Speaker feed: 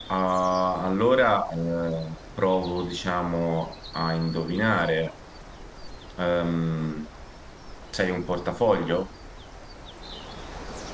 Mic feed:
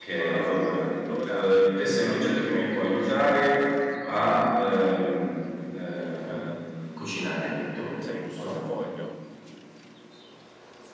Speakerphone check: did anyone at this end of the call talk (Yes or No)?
Yes